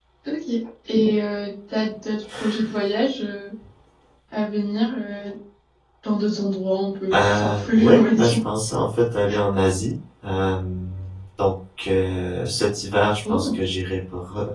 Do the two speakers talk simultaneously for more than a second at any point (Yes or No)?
Yes